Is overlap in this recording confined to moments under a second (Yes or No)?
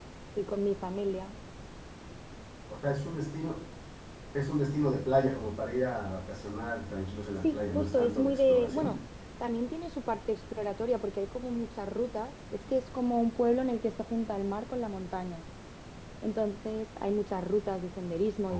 No